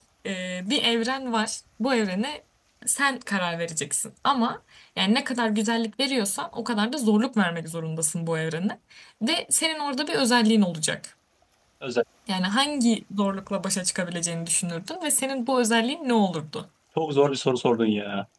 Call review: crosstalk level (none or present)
none